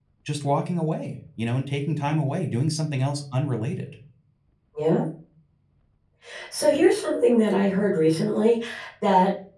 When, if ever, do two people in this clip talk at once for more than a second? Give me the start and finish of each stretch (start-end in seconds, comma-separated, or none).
none